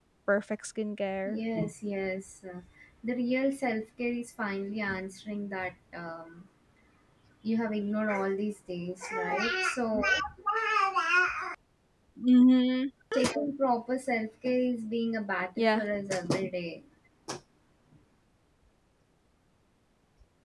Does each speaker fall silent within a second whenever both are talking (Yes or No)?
Yes